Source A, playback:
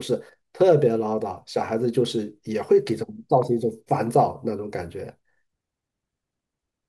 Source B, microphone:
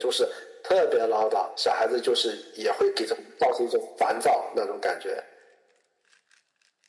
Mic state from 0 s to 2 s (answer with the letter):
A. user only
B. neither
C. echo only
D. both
C